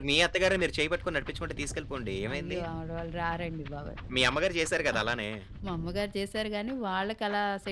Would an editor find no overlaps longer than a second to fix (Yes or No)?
Yes